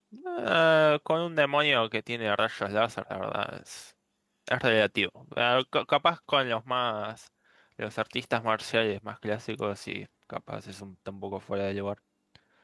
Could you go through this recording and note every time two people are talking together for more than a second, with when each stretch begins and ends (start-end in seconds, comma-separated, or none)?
none